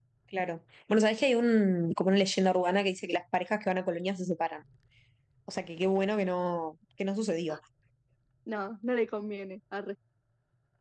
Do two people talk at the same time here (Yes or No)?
No